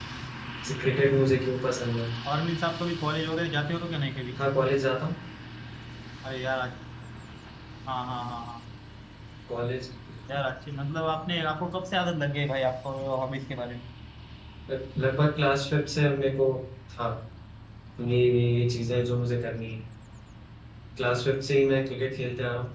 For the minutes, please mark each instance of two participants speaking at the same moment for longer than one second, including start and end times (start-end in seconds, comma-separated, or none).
none